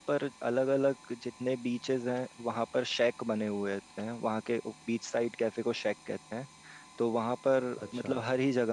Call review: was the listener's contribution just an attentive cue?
Yes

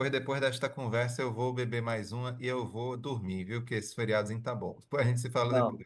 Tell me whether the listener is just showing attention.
No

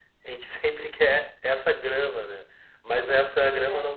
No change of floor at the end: Yes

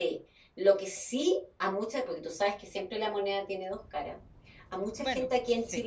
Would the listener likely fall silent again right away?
Yes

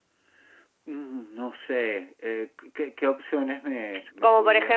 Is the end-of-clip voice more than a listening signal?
Yes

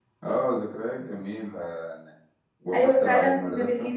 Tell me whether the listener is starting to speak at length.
Yes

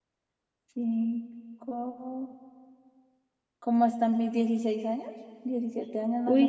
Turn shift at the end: Yes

